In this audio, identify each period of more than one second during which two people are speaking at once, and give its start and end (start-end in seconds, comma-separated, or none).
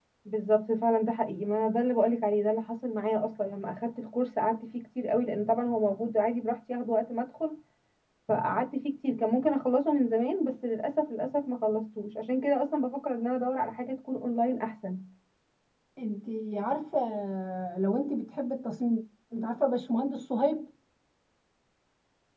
none